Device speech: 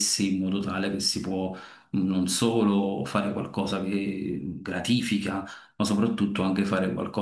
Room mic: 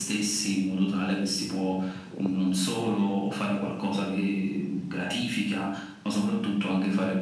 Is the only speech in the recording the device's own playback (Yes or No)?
Yes